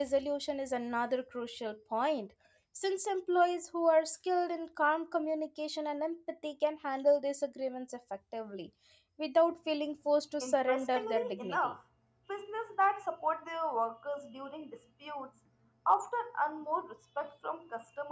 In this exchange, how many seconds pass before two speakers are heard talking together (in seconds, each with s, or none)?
10.4 s